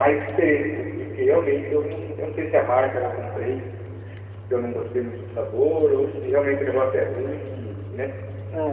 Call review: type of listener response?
taking over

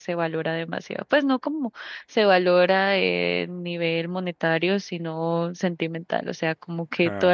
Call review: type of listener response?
listening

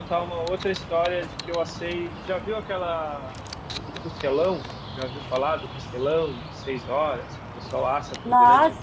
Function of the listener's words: taking over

